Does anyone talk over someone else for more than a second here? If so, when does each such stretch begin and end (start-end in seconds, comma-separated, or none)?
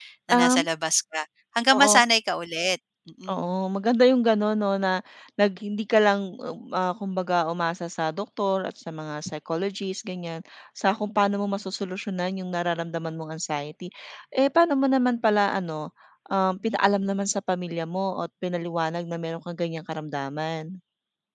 none